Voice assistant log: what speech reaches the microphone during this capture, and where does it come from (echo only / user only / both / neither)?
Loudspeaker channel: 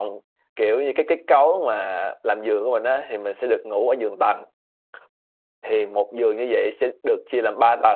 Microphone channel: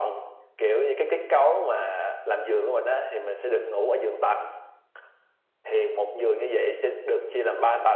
echo only